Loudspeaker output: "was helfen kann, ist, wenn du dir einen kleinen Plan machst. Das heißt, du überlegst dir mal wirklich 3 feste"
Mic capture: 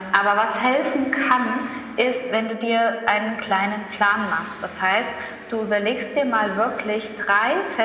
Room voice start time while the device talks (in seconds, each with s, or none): none